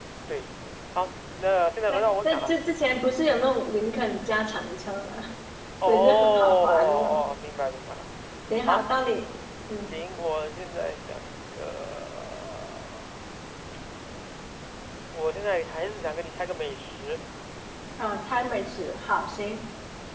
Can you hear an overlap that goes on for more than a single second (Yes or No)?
Yes